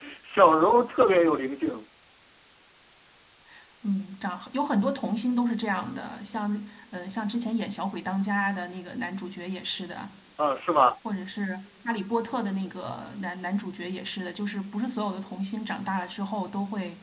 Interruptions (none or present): none